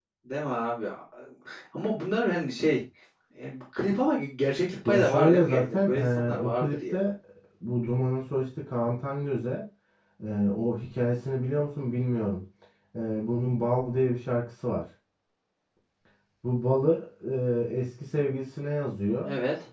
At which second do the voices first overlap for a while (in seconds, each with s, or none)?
4.8 s